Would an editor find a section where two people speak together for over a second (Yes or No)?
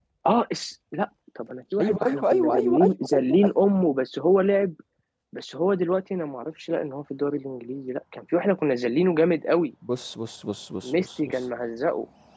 Yes